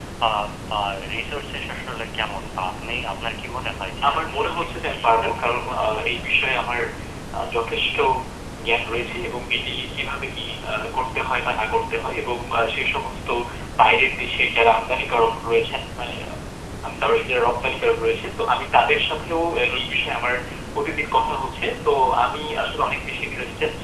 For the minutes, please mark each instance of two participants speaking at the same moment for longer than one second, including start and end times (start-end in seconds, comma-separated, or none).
4.1-6.2